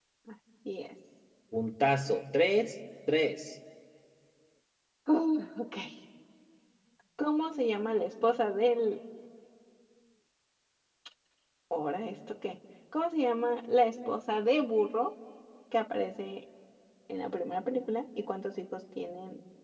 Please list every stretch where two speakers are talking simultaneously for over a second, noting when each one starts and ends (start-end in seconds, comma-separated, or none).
none